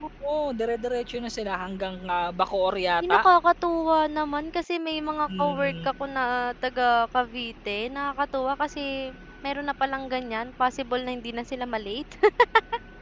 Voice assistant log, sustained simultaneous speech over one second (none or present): none